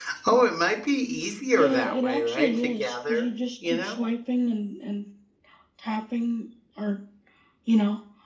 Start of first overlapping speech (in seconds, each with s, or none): 1.5 s